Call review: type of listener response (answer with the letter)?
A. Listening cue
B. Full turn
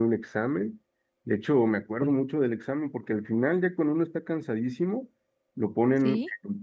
A